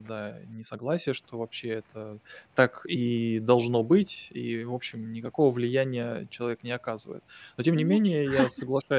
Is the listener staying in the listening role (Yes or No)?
Yes